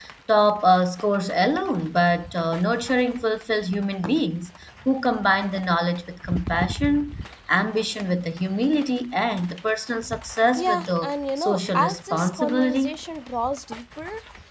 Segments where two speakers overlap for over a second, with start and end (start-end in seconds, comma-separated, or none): 10.6-13.0